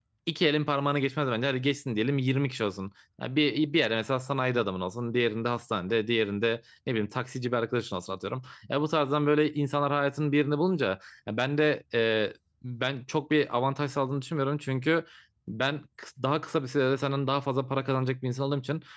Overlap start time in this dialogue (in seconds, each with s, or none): none